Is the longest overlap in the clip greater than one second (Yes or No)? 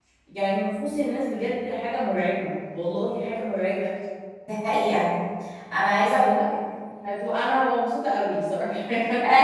No